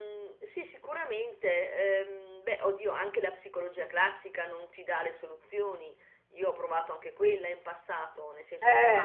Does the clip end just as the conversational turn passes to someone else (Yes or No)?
No